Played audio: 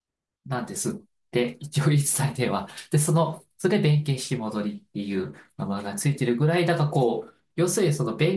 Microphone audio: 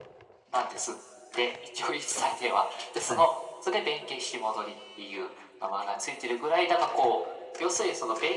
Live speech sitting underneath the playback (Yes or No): Yes